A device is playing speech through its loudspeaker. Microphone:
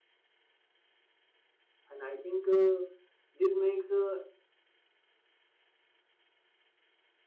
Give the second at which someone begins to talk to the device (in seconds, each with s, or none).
1.9 s